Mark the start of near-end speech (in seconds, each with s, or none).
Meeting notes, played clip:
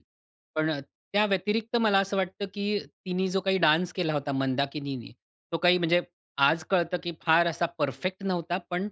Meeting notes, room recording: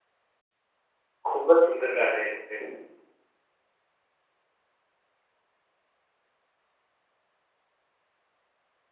1.2 s